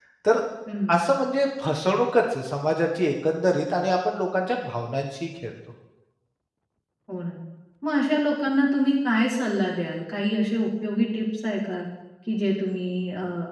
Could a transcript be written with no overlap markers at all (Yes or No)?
Yes